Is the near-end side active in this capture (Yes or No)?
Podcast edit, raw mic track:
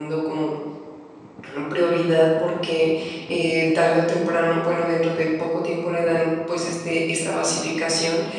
Yes